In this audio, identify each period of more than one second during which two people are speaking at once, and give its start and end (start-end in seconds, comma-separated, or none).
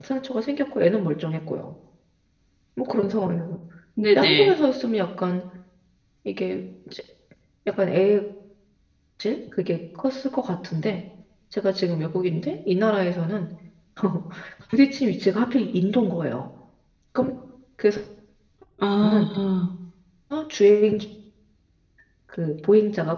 none